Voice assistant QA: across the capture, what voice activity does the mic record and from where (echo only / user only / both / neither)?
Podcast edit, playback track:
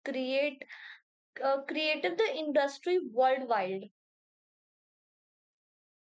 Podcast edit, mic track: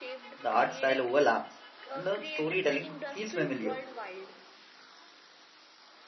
both